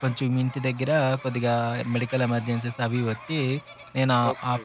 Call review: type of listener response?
listening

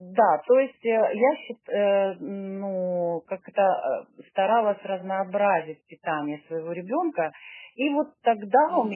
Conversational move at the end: taking over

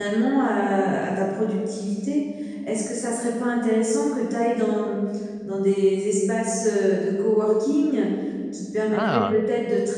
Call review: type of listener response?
listening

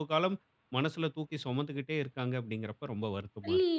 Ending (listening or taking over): taking over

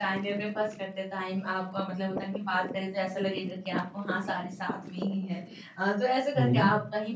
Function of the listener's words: listening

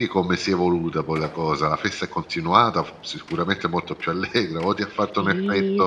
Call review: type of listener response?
taking over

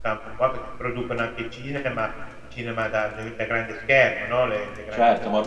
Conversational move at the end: taking over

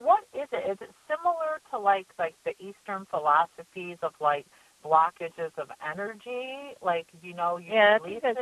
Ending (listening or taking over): taking over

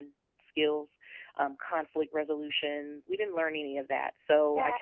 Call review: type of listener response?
taking over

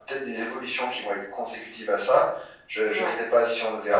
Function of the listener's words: listening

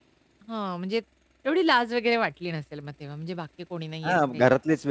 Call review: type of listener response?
taking over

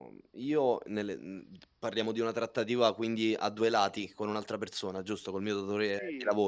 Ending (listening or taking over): taking over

